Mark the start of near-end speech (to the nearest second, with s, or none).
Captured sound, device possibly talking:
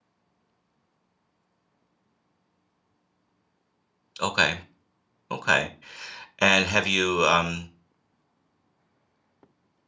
4 s